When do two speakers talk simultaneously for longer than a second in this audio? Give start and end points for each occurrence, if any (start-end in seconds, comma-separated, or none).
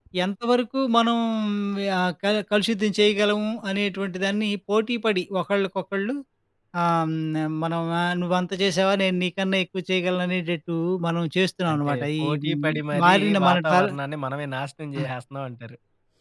11.7-13.8